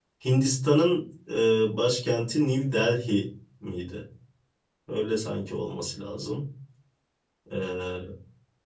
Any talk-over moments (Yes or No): No